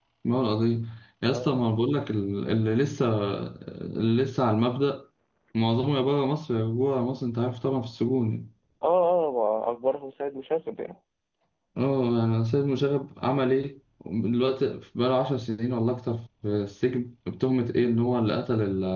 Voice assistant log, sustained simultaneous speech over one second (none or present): none